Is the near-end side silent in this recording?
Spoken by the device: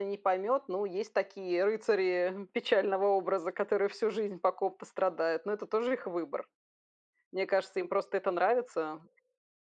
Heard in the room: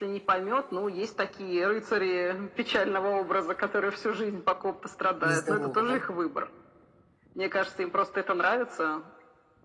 No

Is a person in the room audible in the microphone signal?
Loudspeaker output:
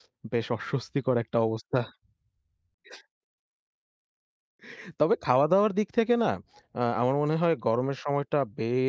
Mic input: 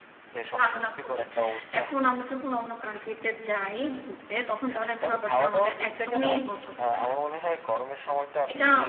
Yes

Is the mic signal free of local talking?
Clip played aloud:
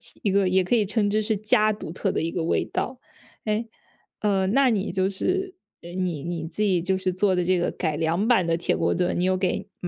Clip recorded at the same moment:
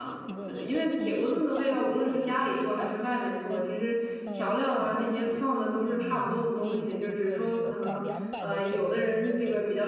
No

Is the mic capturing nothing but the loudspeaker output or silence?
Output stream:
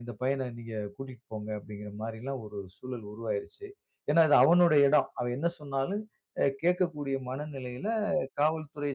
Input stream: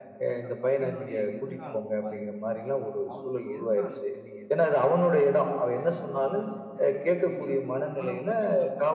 No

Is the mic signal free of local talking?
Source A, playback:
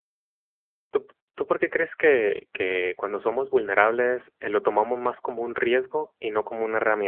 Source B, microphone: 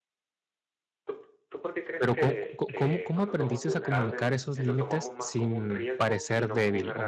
No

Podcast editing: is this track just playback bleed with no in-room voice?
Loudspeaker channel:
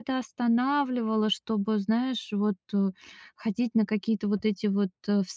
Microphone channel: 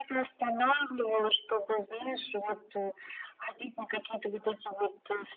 Yes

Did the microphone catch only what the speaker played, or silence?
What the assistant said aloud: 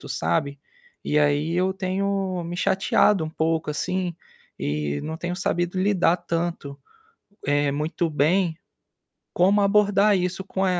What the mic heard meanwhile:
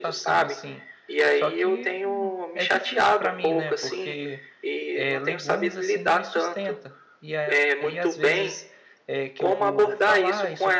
No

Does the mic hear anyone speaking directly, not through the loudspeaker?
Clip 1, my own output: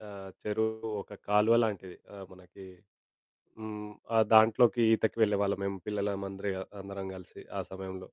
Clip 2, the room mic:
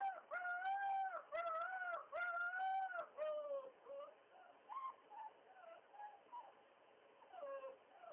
No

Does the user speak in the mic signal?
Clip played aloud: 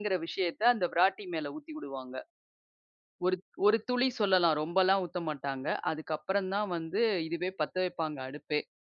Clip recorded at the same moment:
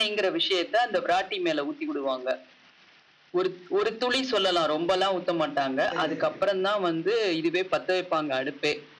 Yes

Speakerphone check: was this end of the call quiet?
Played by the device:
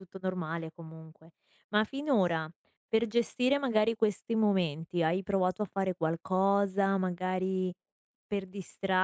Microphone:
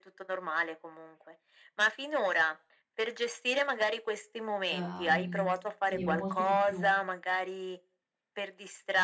No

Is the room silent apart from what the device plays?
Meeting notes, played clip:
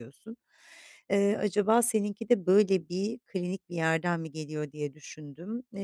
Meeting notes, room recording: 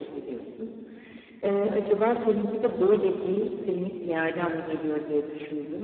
Yes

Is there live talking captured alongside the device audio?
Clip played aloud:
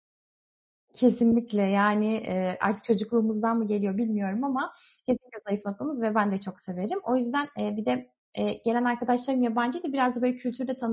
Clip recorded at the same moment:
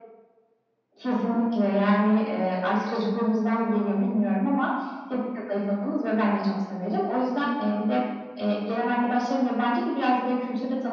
No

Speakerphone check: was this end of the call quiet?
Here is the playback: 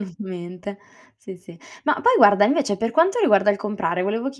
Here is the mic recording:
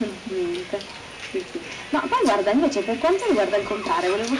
Yes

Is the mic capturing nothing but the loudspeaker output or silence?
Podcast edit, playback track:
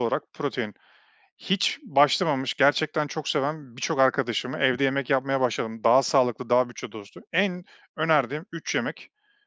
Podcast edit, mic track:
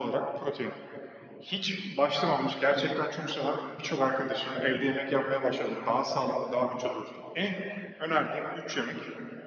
Yes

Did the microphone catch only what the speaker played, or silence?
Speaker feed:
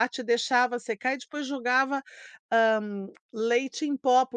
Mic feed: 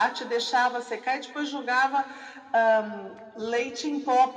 Yes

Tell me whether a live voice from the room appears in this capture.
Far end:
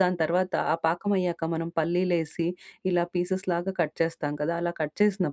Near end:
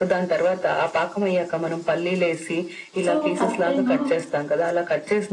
Yes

